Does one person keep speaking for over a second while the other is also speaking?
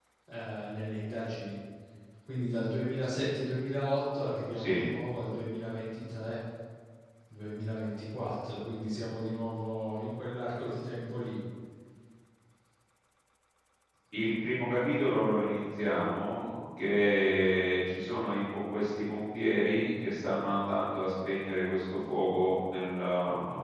No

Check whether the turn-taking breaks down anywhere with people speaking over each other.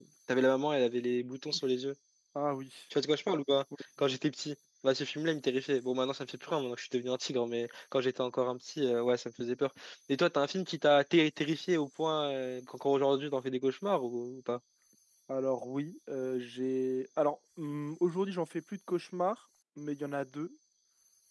No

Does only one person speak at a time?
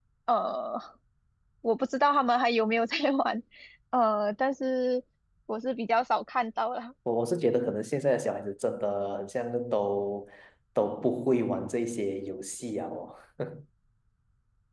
Yes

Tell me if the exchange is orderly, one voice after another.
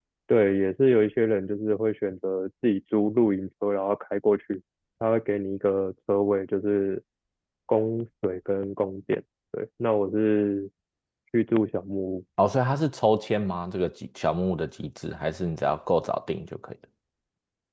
Yes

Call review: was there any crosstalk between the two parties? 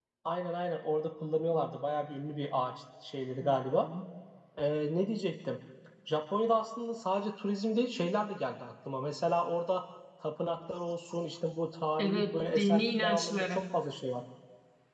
Yes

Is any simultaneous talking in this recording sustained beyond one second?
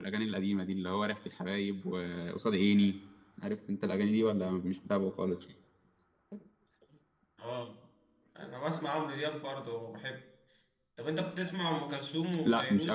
No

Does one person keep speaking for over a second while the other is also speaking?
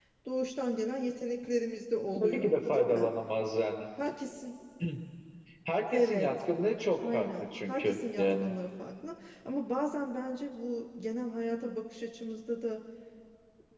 Yes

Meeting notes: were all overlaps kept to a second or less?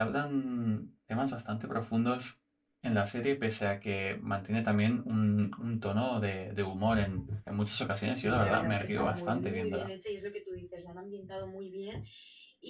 No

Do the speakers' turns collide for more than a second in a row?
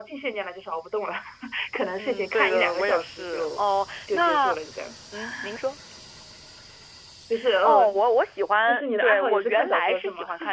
Yes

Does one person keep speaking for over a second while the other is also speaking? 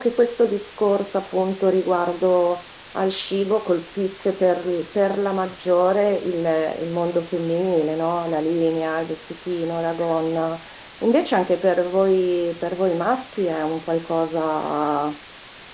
No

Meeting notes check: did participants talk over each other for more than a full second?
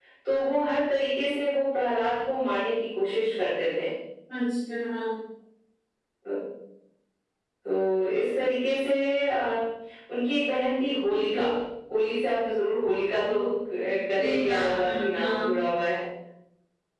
Yes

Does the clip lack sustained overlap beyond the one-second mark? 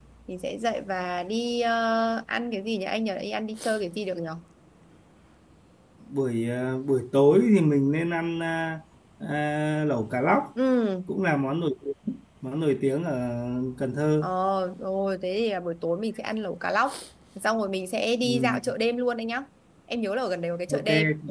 Yes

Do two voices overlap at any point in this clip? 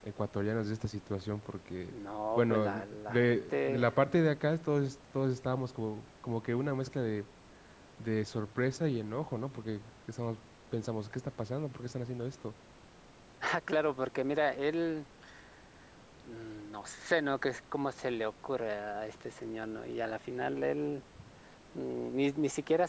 Yes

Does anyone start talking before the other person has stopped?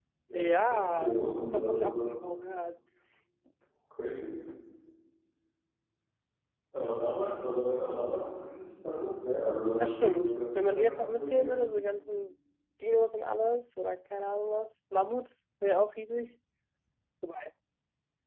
Yes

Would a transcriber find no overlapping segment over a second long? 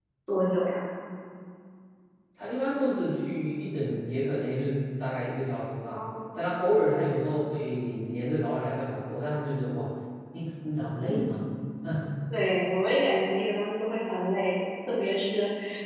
Yes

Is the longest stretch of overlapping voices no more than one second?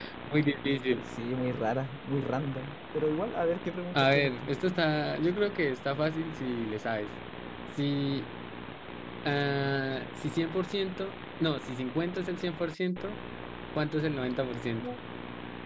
Yes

